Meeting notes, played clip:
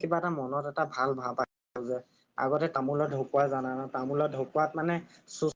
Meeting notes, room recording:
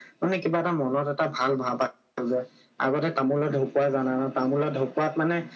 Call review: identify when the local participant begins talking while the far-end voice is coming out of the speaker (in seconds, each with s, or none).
none